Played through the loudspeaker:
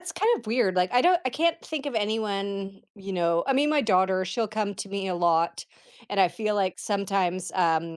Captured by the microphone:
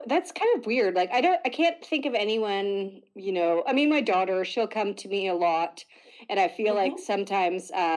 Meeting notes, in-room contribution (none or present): present